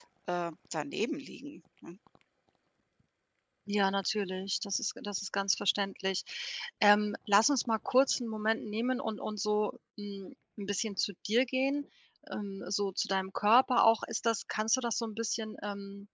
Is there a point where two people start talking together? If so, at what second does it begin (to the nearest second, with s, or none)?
none